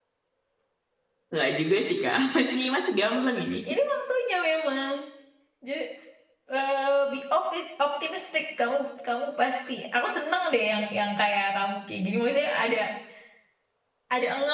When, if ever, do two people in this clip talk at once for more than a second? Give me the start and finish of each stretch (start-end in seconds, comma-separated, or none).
none